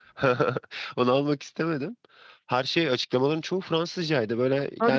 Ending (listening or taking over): taking over